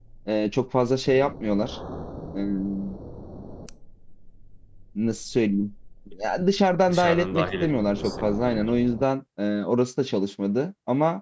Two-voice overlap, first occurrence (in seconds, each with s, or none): 6.9 s